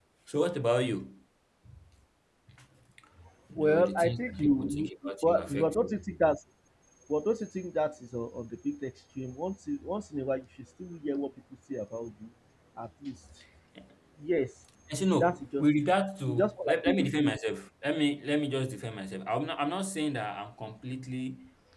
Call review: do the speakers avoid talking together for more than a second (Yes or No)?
No